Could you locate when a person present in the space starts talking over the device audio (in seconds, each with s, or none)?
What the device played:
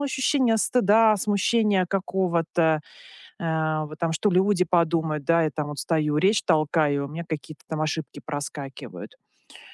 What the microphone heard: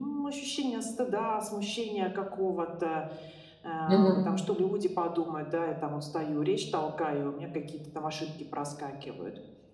3.9 s